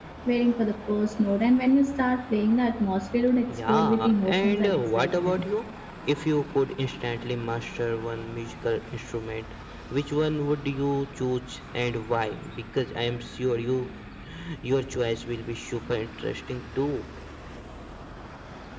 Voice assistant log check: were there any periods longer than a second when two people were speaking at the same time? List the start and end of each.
3.7-5.5

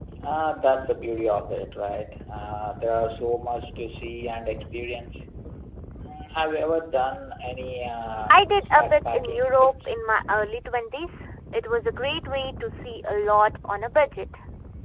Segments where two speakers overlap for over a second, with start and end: 8.3-9.7

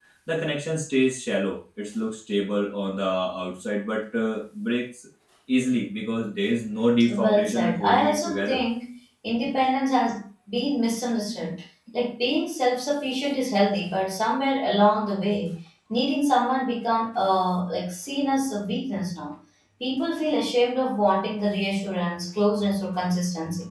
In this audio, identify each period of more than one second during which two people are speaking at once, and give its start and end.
7.1-8.6

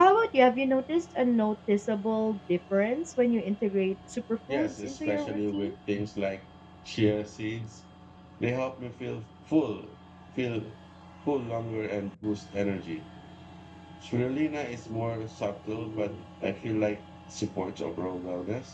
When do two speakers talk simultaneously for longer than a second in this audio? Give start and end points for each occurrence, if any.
4.5-5.7

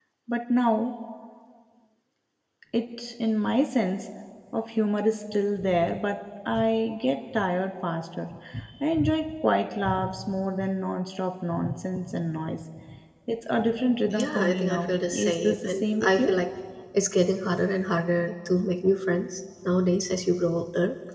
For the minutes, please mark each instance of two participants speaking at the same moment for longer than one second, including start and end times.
14.1-16.3

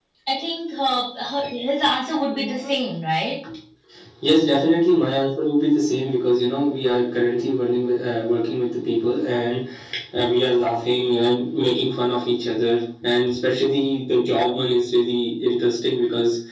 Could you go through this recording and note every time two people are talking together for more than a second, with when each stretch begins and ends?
none

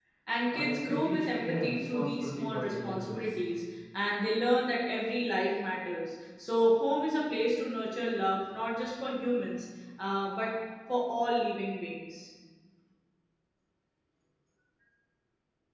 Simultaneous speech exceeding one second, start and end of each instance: 0.5-3.3

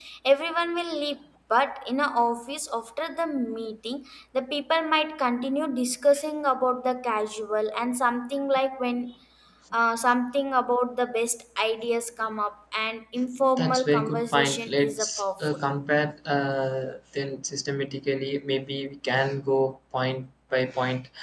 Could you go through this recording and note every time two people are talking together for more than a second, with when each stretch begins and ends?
13.6-15.4

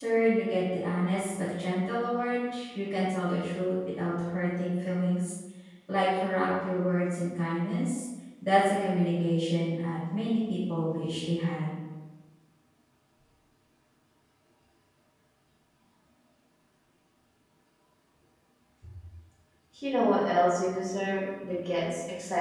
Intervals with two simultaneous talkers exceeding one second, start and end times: none

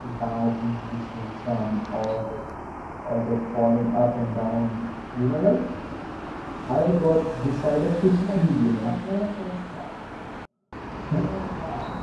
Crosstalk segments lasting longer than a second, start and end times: none

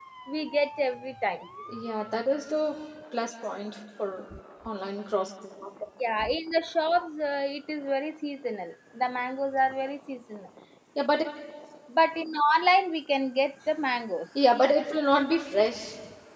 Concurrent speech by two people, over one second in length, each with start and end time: none

